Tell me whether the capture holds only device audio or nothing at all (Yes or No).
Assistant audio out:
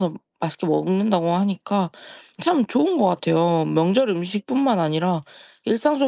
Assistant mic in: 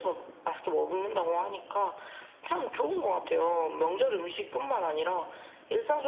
Yes